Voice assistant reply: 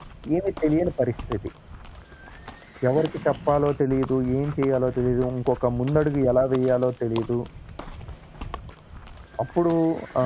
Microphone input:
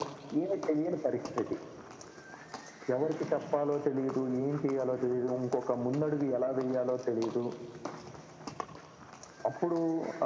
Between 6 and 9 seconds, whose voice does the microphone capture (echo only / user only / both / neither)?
echo only